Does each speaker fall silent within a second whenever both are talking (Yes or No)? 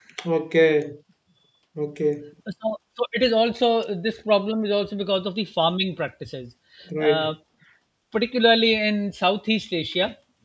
Yes